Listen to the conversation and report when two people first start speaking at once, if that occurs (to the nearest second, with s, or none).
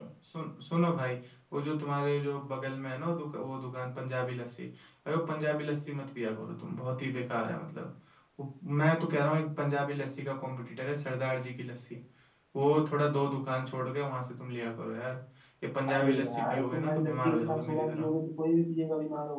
16 s